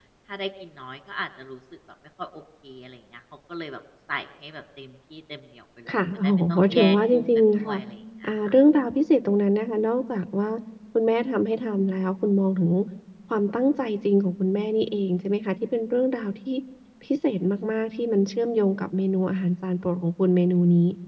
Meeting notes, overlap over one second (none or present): present